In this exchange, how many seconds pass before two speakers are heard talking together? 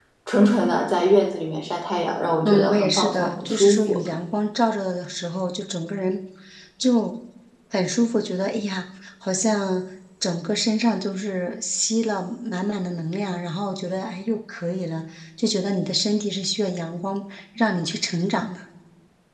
2.4 s

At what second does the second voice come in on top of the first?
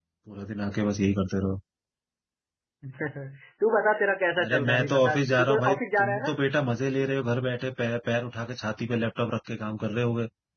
4.4 s

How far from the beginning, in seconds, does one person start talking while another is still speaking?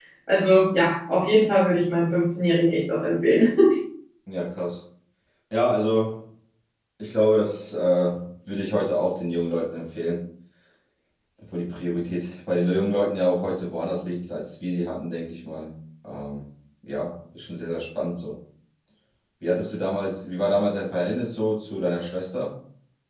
none

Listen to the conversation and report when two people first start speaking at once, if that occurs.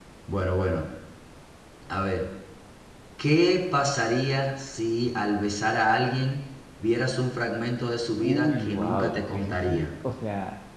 8.2 s

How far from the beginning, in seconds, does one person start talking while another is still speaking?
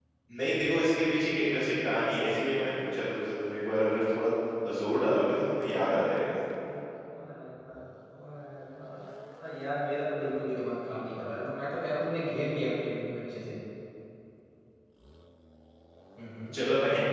none

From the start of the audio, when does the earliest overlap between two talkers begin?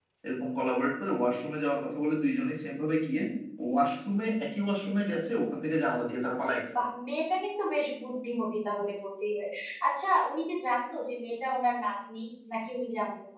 none

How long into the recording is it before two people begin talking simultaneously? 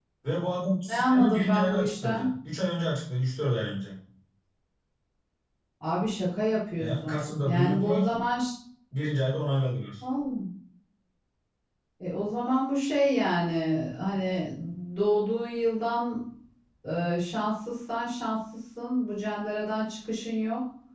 0.8 s

